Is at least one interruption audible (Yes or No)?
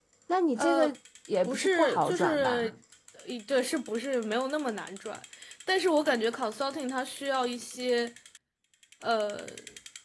Yes